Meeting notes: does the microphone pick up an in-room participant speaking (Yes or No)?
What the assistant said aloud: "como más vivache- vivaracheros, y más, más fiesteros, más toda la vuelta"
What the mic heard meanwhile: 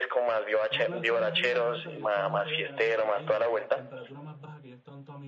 Yes